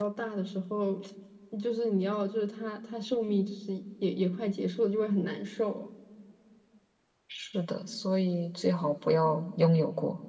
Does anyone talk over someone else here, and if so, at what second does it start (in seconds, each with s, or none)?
none